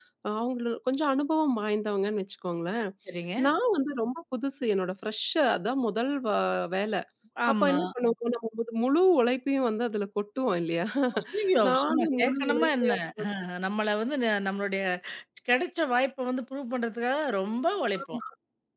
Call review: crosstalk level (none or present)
present